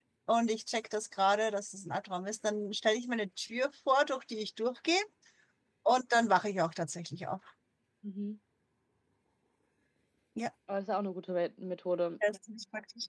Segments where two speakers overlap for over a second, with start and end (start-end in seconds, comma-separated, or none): none